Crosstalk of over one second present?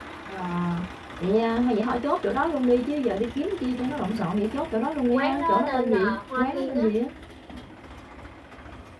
Yes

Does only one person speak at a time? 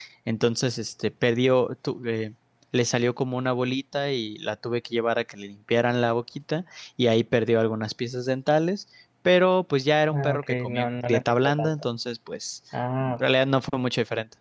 No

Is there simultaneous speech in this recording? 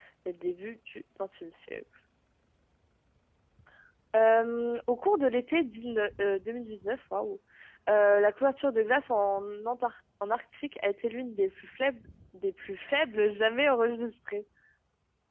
No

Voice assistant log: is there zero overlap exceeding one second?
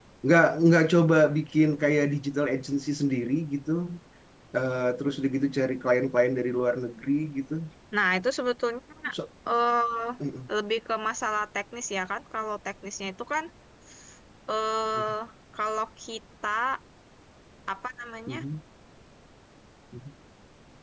Yes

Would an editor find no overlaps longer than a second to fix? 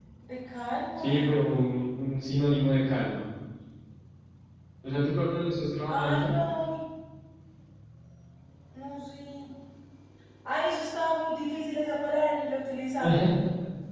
Yes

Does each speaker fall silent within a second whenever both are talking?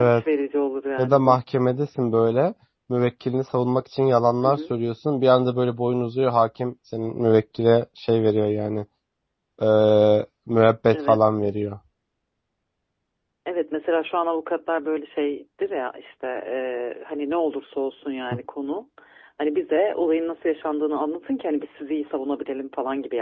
Yes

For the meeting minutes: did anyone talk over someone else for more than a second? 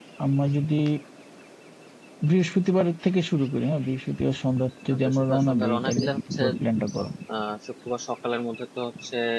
Yes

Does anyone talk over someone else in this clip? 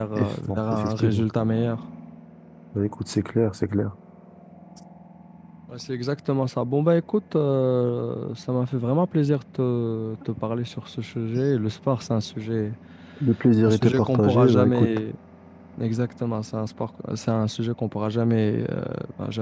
Yes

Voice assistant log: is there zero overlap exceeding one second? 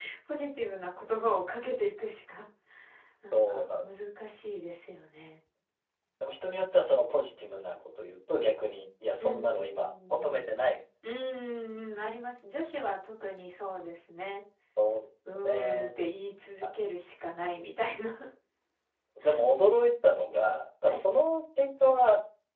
No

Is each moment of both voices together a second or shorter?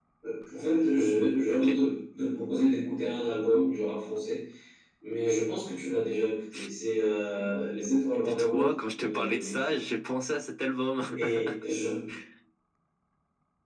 No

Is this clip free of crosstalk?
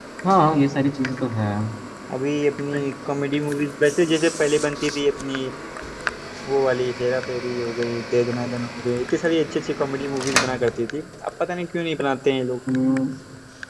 Yes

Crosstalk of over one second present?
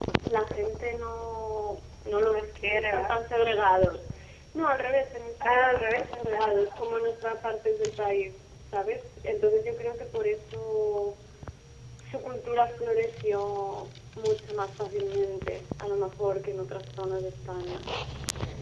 Yes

